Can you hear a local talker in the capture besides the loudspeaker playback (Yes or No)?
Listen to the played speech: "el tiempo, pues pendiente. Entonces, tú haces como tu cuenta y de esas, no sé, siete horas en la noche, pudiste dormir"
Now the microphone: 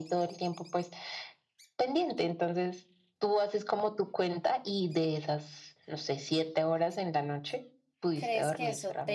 Yes